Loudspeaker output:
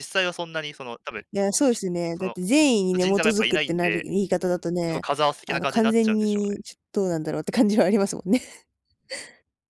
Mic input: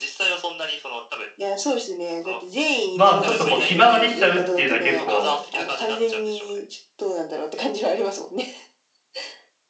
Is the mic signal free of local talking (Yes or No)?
No